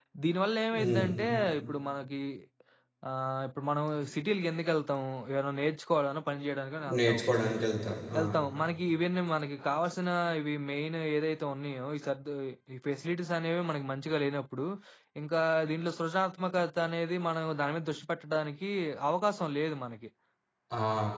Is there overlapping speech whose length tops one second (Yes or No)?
No